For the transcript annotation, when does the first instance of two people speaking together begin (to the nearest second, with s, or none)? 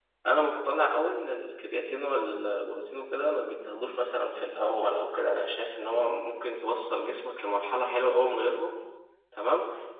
none